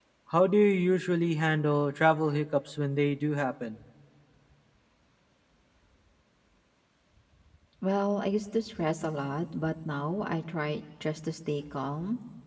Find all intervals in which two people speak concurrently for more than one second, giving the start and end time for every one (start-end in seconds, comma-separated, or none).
none